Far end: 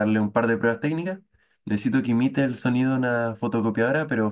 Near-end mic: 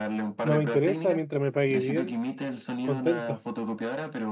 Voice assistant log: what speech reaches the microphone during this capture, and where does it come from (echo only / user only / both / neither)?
both